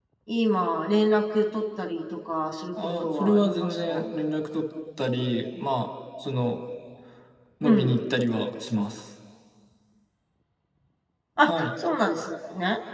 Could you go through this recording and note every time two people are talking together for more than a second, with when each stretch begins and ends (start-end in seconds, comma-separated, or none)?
2.8-4.0